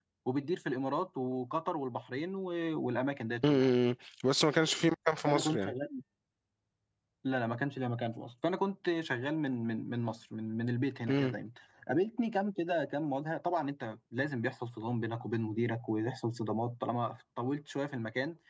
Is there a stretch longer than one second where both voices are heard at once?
No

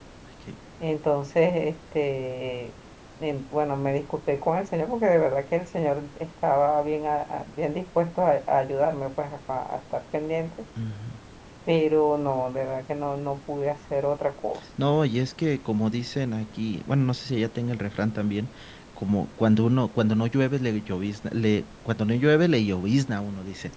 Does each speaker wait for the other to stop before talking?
Yes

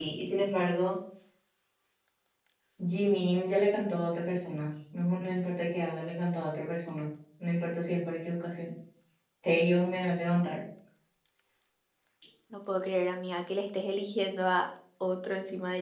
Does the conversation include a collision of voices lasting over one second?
No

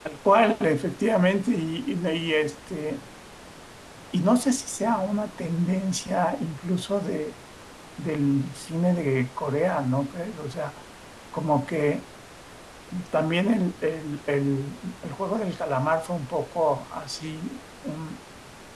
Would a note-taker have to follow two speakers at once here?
No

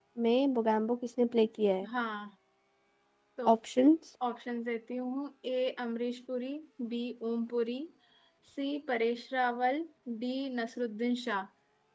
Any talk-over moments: No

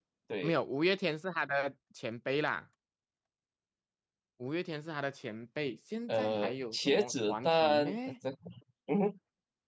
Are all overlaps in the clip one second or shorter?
No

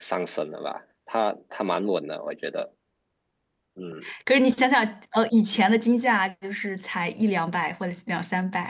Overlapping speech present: No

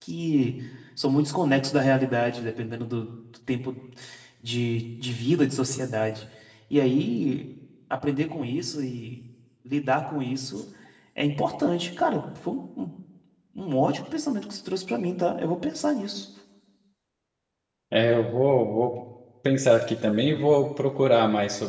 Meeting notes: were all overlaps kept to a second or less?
Yes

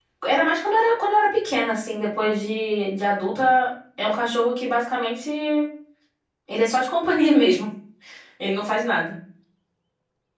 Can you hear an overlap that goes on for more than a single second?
No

